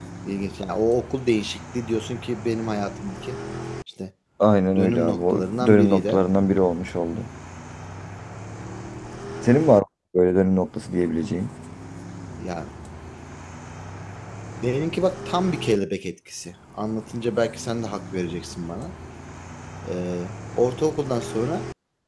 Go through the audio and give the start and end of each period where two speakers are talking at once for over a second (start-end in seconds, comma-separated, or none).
4.8-6.2